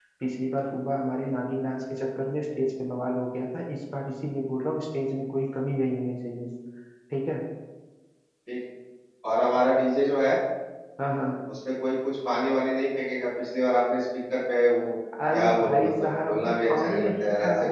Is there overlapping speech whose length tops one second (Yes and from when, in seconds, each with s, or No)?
Yes, from 15.1 s